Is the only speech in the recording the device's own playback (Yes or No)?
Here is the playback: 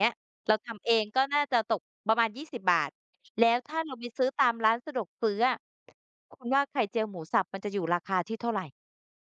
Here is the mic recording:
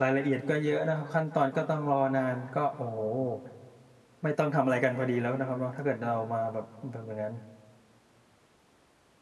No